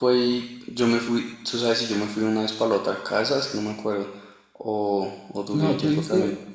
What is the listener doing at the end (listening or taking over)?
taking over